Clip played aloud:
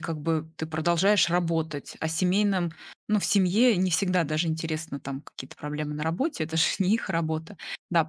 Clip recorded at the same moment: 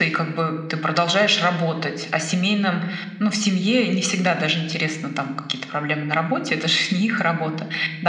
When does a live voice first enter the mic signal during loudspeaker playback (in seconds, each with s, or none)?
none